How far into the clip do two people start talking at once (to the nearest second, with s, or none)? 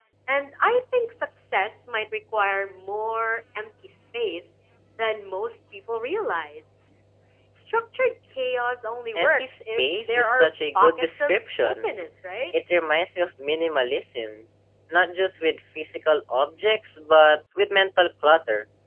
9 s